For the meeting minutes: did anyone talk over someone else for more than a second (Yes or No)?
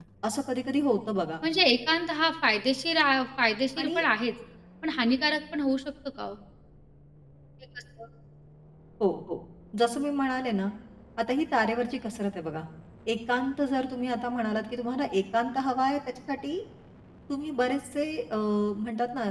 No